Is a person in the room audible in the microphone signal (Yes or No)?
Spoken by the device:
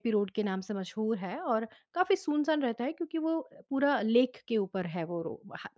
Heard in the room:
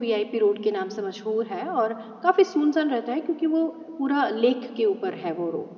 No